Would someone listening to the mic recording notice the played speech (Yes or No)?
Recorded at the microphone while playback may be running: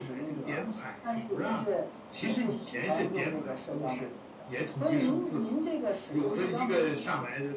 Yes